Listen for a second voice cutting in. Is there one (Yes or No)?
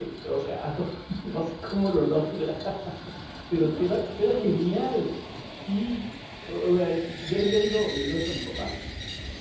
Yes